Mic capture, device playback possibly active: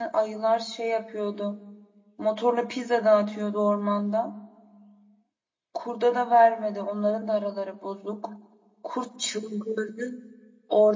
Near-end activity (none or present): present